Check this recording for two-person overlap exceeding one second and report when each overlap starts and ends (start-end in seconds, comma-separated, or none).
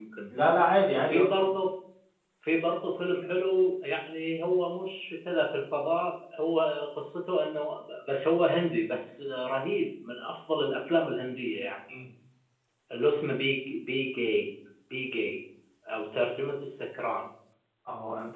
none